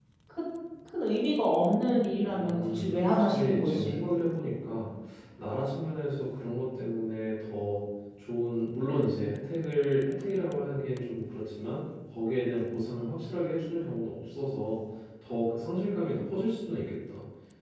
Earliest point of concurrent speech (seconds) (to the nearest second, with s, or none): 2 s